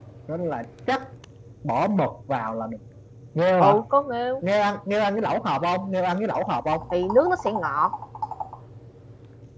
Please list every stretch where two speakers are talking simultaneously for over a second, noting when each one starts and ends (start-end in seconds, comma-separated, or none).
none